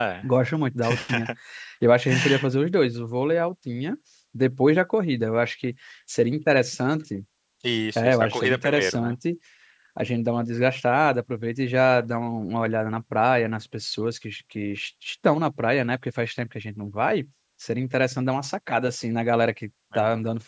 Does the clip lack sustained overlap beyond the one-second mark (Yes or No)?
No